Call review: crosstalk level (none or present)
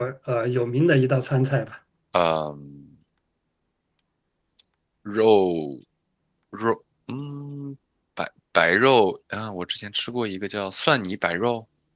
none